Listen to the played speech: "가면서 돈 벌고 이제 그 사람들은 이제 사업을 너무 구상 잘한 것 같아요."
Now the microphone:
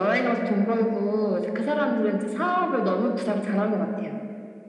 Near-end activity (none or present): none